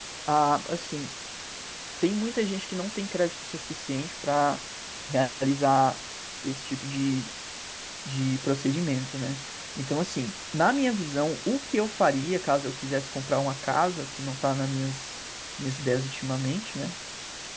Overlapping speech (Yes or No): No